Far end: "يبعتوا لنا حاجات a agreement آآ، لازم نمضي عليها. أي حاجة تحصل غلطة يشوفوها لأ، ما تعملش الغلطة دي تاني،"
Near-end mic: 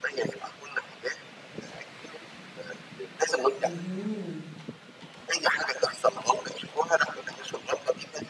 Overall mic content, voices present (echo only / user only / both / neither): both